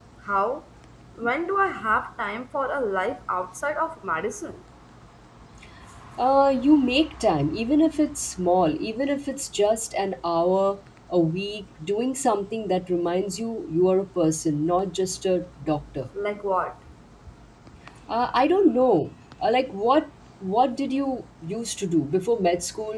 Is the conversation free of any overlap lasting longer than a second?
Yes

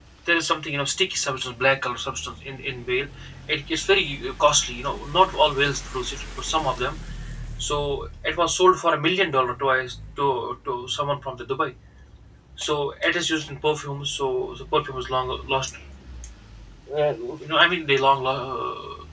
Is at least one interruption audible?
No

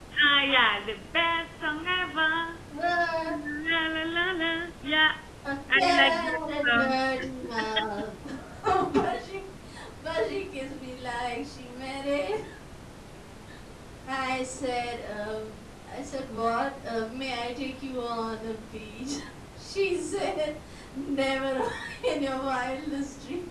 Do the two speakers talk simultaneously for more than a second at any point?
Yes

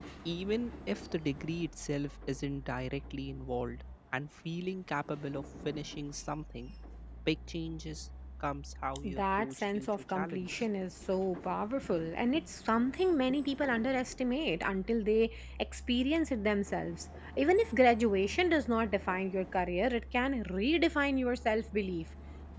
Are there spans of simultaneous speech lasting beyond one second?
Yes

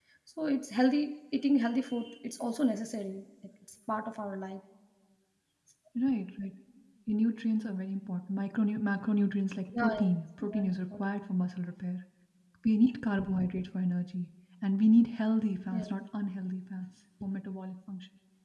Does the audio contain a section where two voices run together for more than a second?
Yes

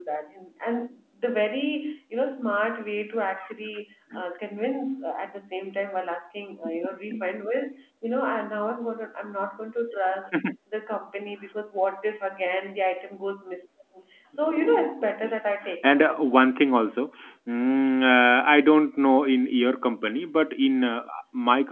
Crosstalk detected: Yes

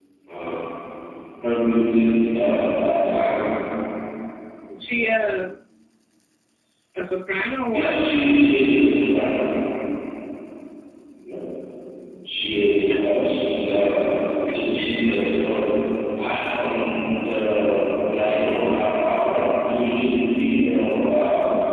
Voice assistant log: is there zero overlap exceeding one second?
Yes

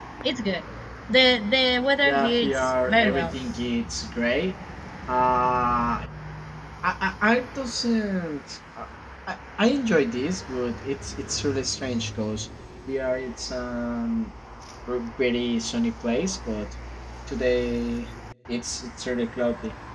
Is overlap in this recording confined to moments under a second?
No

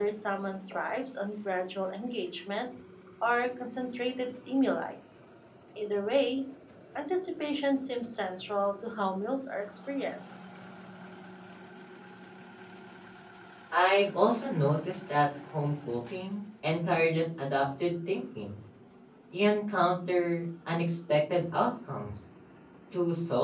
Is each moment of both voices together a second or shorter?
Yes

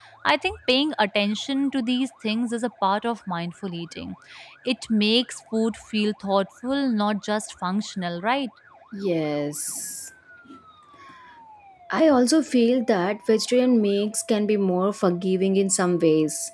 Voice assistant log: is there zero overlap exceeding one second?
Yes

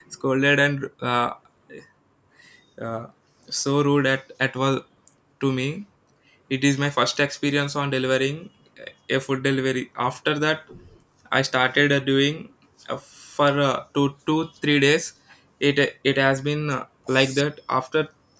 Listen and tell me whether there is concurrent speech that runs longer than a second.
No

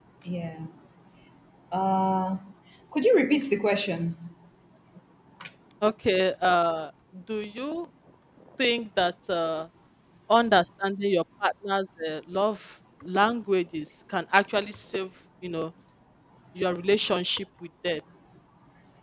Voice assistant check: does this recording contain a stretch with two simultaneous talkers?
No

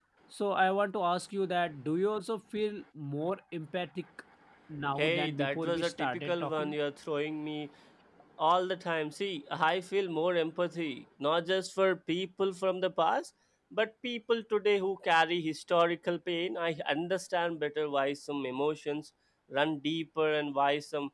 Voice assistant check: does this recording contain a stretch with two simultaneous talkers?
Yes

